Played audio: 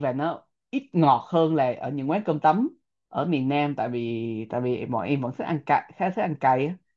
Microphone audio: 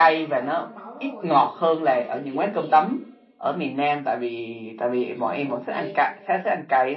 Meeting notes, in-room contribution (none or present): present